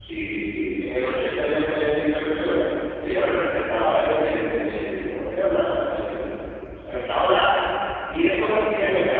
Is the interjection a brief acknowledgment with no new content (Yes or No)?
Yes